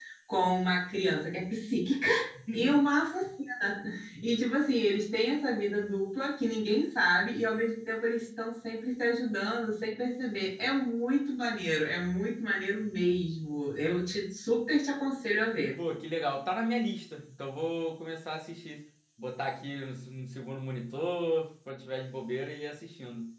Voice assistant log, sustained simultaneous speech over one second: none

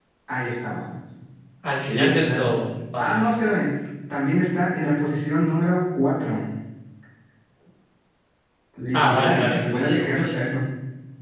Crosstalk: present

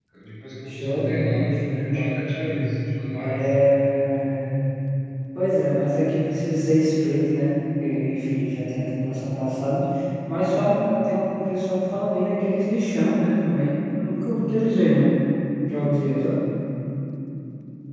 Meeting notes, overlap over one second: present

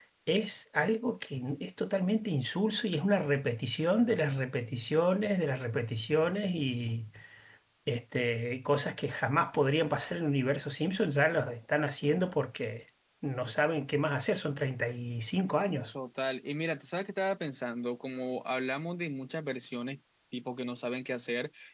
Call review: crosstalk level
none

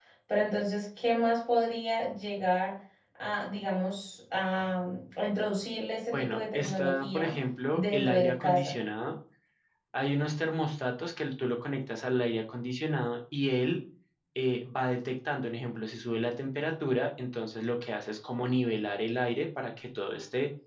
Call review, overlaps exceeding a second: present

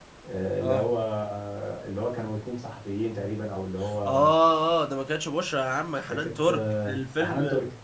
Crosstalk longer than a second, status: present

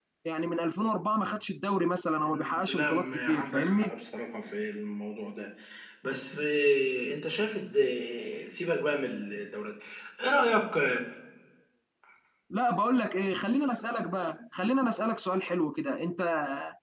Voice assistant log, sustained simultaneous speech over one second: present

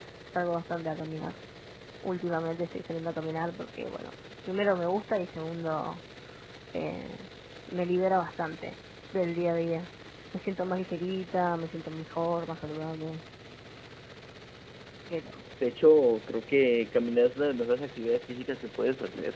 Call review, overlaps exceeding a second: none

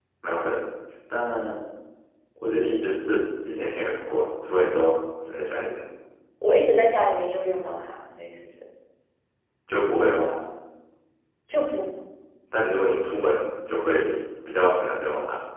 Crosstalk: none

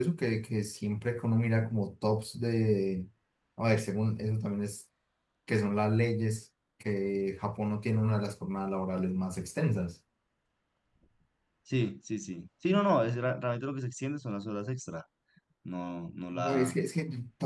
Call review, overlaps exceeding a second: none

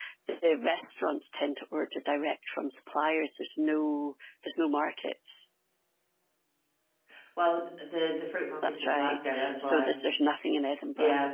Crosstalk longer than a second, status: present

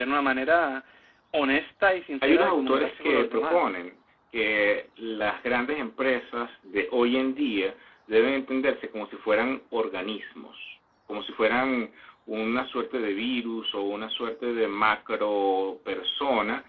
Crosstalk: present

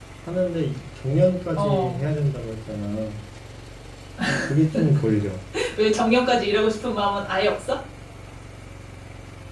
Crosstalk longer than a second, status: none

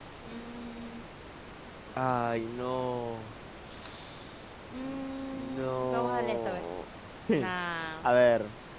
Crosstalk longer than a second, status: present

